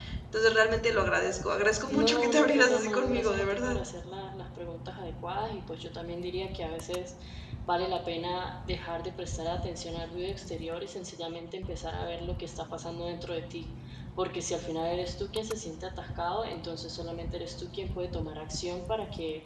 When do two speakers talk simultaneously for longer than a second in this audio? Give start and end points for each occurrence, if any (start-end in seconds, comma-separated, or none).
1.9-3.8